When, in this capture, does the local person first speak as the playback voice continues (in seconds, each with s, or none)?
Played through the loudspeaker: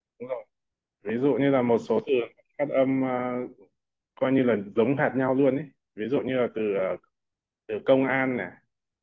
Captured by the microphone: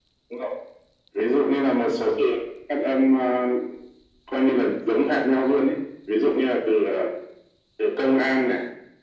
none